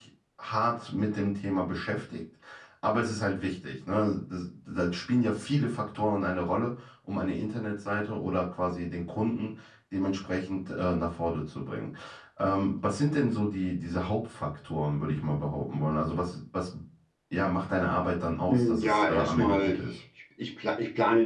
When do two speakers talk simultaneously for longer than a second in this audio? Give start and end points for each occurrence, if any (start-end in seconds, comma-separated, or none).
18.5-19.8